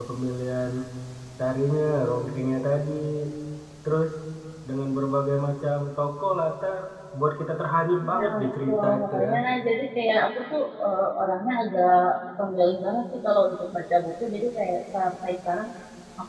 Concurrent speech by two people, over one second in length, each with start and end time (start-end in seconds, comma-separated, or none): 8.1-9.3